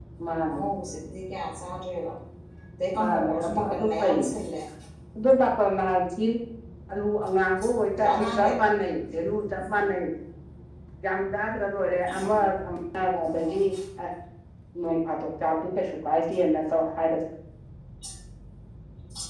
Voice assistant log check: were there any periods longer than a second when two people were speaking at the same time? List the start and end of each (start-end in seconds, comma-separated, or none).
3.0-4.3